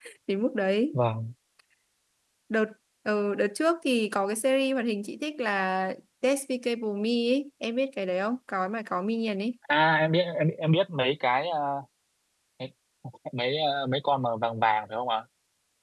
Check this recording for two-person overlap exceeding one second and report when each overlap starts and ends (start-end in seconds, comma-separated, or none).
none